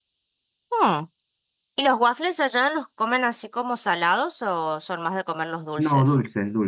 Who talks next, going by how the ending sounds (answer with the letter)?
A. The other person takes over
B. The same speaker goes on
A